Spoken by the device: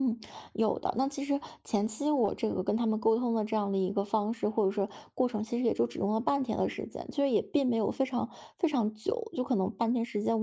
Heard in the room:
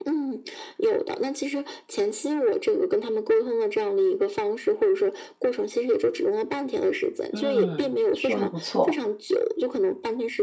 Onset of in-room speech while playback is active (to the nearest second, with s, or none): 7 s